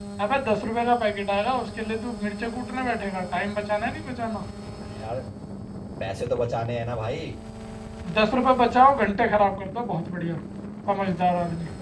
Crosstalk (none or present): none